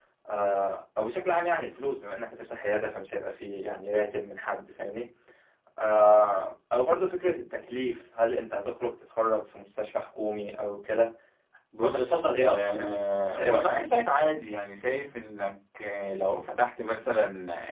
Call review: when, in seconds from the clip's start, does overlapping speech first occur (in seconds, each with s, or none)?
11.8 s